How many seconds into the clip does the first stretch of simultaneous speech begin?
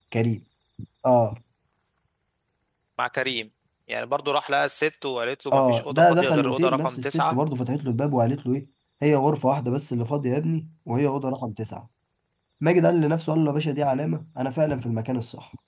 6 s

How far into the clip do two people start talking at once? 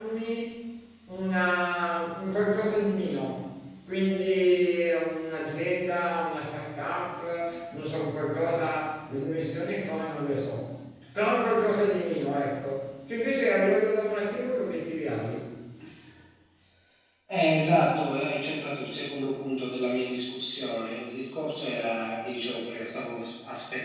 none

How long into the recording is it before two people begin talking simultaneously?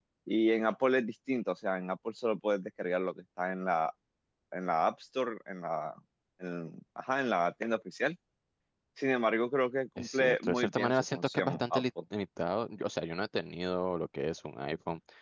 10 s

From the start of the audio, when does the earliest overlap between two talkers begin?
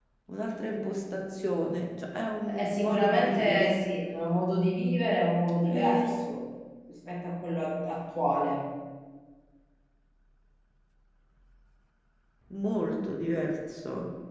2 s

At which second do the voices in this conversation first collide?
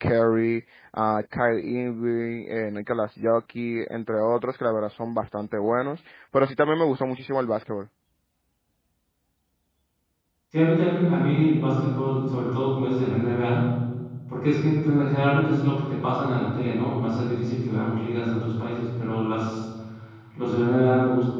none

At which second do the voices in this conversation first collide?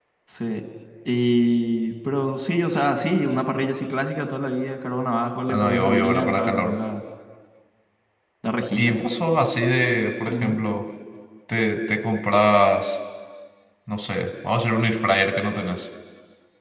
5 s

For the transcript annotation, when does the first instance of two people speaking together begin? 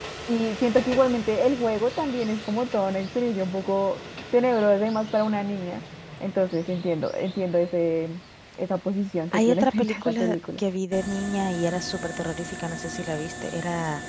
9 s

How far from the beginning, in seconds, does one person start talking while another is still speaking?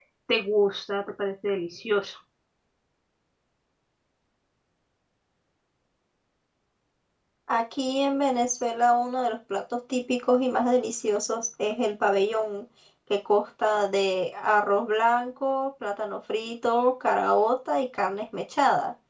none

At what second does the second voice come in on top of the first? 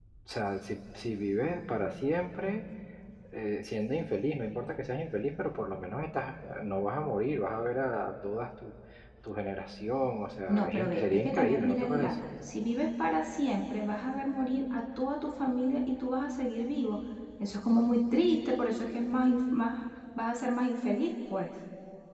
10 s

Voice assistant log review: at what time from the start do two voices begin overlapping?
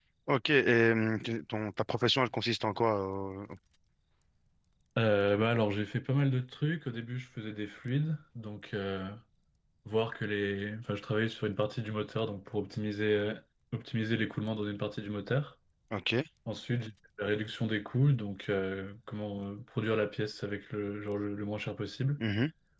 none

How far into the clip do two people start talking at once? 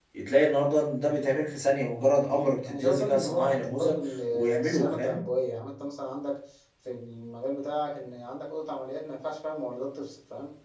3 s

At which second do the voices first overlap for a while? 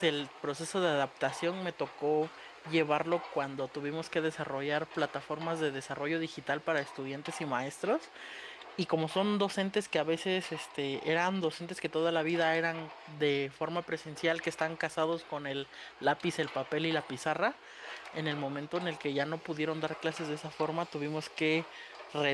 none

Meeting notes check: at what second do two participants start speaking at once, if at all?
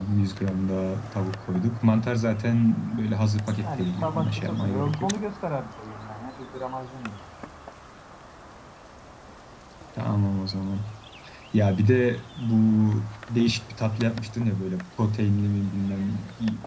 4 s

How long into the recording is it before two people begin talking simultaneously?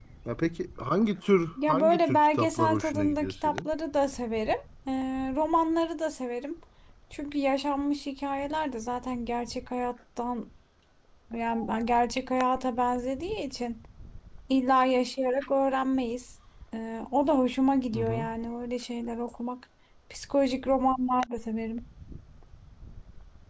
2 s

